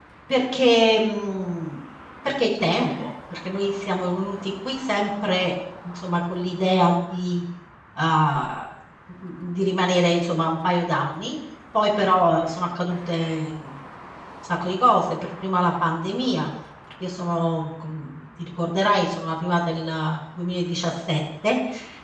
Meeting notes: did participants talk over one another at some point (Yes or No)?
No